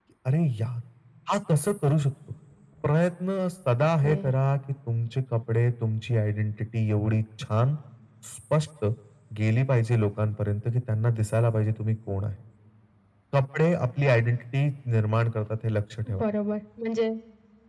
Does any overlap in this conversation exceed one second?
No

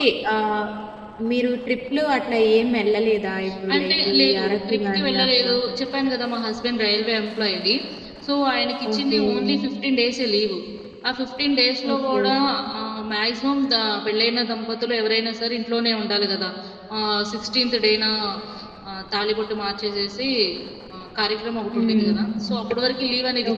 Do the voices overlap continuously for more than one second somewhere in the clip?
Yes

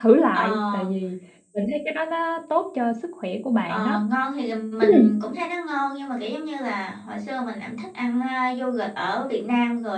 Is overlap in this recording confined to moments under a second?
Yes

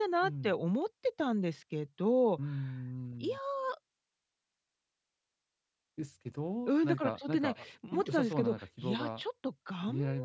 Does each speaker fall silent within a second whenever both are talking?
No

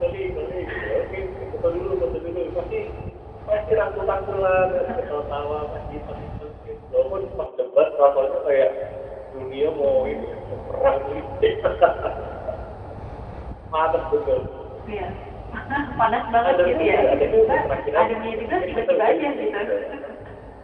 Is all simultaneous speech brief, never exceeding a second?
No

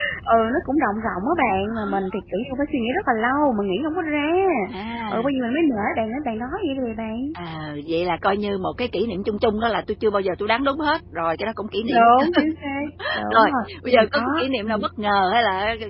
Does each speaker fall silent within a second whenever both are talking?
No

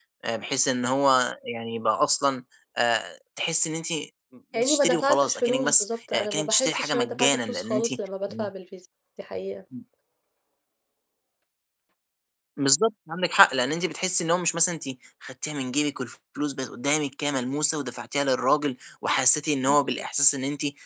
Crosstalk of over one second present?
Yes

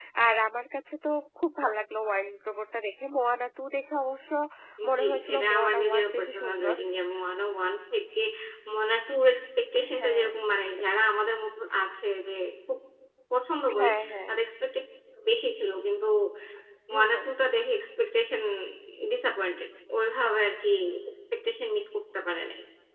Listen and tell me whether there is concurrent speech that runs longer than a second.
Yes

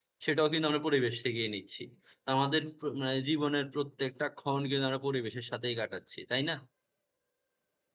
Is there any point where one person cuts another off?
No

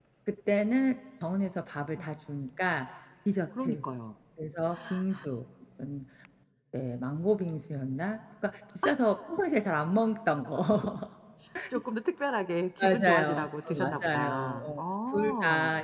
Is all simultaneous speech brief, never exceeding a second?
No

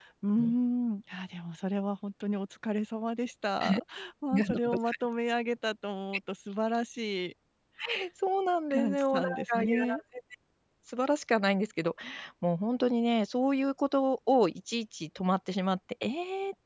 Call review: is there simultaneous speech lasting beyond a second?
Yes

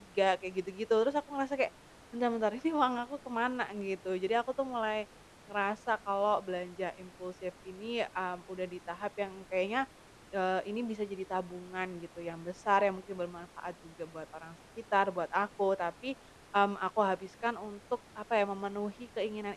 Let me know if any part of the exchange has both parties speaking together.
No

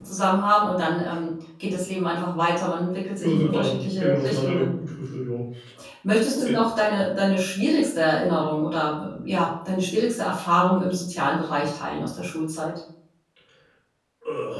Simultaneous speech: Yes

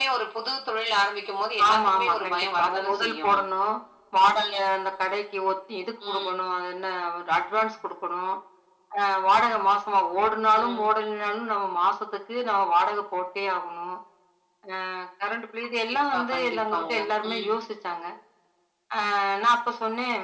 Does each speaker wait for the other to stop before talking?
No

